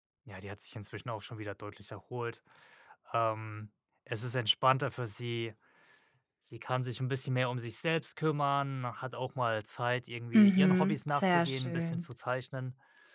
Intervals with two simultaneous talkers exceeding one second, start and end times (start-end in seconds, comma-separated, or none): 10.3-12.0